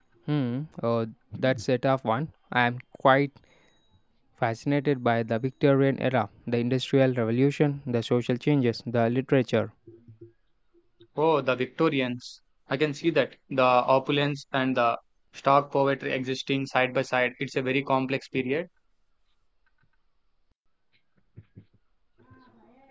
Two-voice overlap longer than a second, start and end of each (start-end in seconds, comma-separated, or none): none